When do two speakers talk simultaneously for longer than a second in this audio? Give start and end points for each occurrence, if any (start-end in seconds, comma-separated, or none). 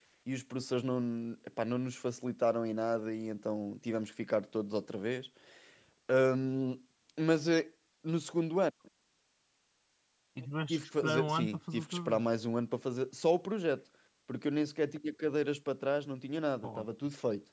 10.7-12.2